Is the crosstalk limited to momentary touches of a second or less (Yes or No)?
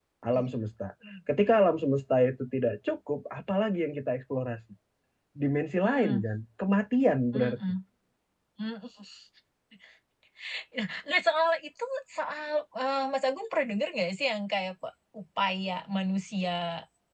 Yes